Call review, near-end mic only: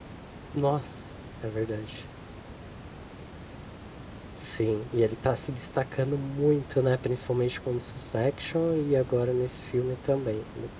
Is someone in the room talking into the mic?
Yes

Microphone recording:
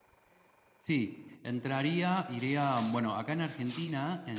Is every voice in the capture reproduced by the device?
No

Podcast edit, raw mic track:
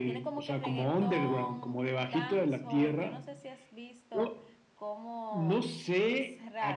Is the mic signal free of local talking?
Yes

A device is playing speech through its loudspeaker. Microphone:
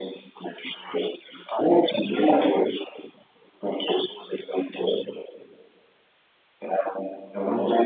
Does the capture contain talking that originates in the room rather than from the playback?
No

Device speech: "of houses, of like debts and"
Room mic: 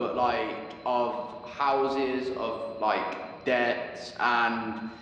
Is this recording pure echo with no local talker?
Yes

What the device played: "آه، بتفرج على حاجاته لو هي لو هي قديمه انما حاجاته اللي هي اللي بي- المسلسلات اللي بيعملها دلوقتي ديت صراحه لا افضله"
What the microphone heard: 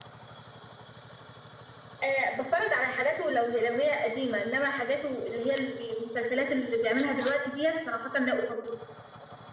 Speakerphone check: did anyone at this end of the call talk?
No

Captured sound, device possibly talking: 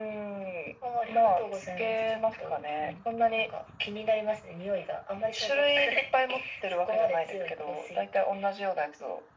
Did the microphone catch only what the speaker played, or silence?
Yes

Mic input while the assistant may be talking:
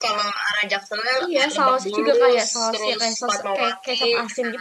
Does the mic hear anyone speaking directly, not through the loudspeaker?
Yes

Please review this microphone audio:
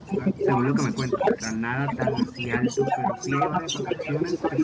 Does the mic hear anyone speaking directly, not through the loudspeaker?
Yes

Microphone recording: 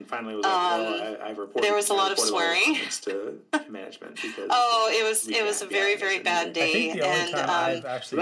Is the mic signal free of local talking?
No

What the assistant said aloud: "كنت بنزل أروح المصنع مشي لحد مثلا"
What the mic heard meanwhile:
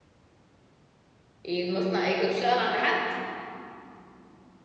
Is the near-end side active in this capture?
Yes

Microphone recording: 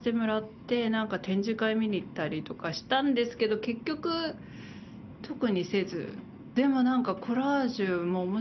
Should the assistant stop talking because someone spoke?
Yes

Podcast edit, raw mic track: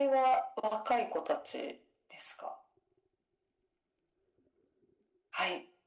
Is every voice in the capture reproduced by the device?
Yes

